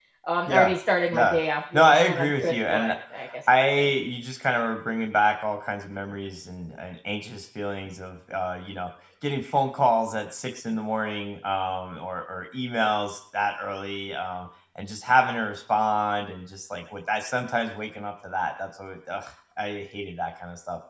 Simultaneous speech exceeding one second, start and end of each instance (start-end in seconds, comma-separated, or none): 1.7-2.9